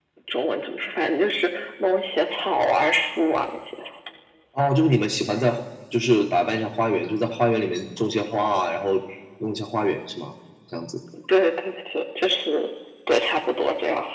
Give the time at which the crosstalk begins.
none

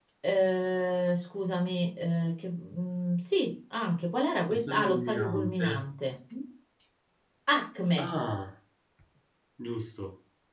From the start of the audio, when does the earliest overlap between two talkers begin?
4.5 s

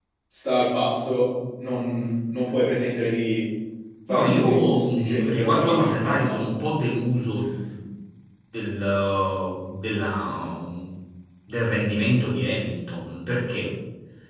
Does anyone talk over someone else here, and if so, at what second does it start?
4.1 s

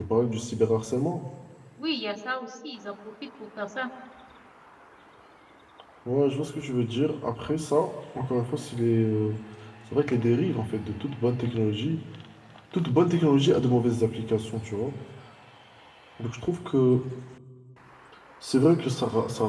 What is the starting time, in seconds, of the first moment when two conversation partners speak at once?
none

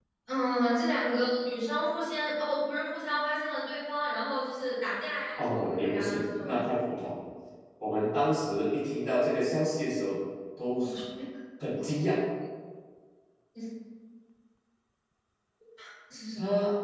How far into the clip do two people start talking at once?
5.4 s

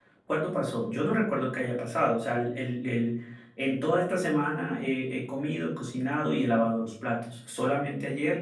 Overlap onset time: none

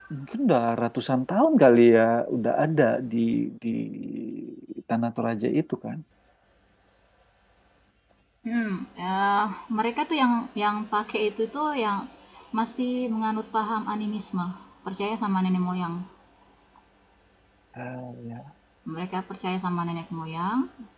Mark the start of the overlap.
none

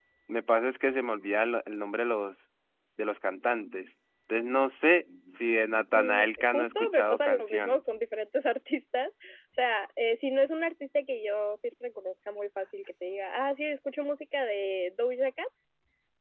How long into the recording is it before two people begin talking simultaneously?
5.9 s

